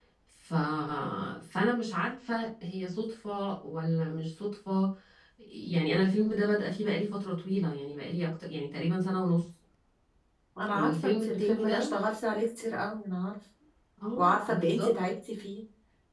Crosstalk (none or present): present